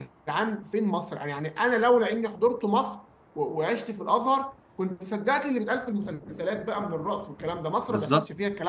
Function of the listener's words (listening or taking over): taking over